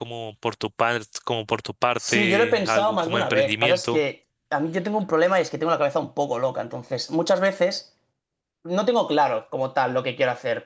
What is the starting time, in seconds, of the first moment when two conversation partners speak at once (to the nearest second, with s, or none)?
2 s